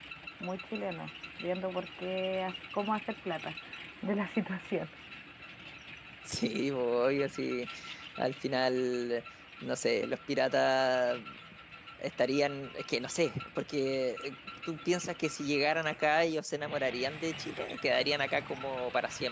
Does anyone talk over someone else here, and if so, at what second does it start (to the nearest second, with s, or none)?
none